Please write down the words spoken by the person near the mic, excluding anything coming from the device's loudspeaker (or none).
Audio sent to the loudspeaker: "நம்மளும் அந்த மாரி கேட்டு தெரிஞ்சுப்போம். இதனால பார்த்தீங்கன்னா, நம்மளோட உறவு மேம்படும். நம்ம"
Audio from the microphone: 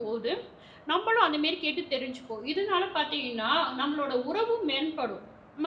none